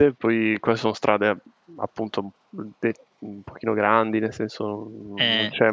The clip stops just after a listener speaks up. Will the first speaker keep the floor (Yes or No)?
Yes